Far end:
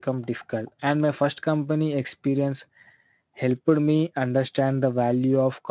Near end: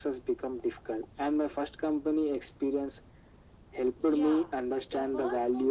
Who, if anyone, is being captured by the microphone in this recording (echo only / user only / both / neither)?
both